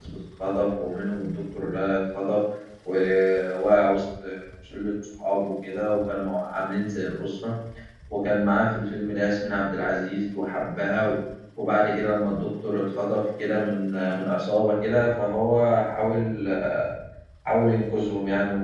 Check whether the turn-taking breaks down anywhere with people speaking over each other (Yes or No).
No